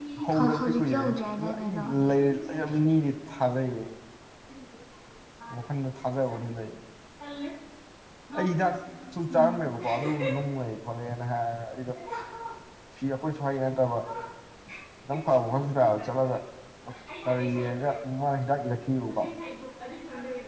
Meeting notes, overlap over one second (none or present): present